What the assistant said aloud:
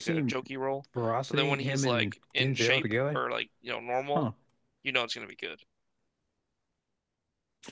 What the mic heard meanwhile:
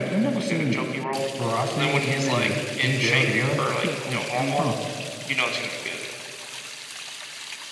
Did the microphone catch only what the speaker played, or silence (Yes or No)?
No